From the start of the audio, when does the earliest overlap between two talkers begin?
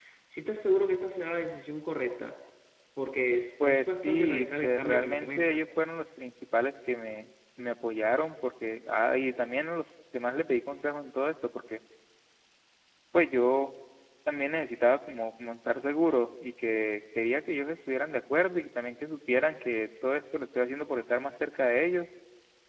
4 s

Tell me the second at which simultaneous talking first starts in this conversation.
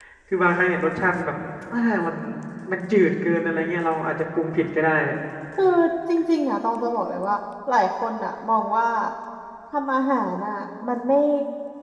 none

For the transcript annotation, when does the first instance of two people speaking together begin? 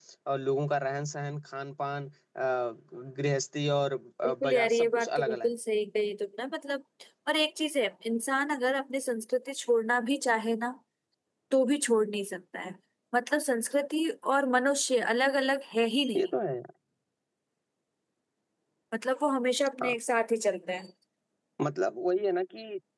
4 s

